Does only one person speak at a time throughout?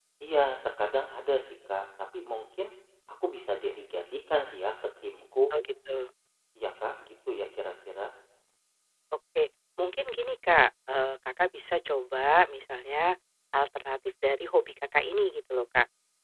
Yes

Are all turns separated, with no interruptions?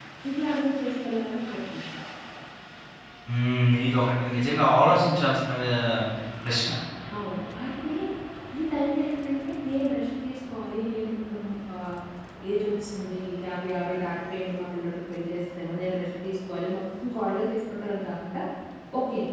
Yes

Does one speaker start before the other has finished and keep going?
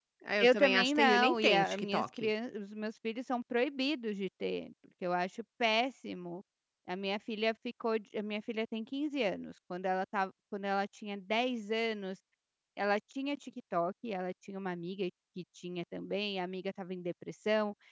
Yes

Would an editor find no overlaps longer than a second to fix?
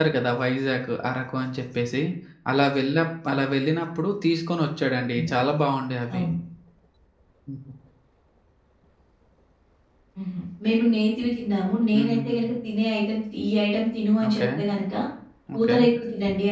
Yes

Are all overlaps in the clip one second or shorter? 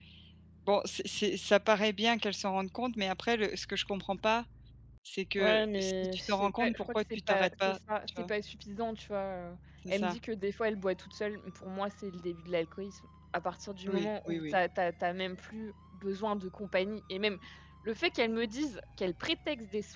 No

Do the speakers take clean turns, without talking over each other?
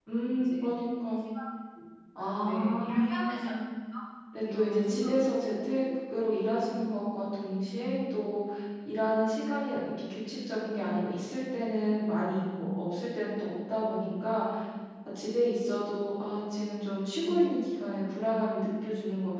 No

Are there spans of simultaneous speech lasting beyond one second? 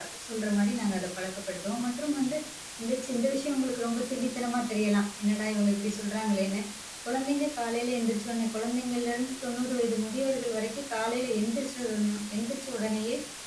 No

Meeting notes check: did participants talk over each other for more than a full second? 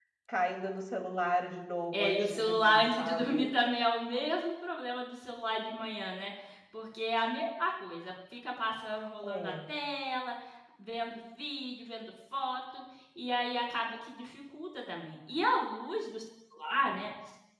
Yes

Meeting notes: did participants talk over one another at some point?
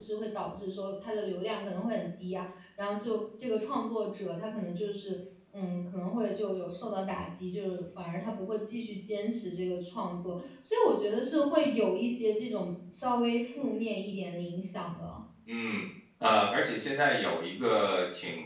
No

